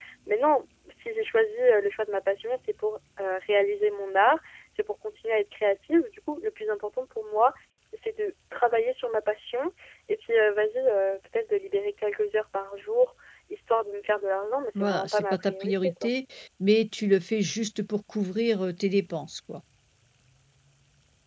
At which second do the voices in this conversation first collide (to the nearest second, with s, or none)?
15 s